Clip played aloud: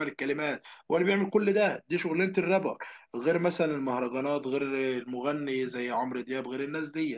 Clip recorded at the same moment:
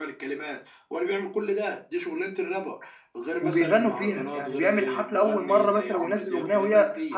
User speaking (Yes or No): Yes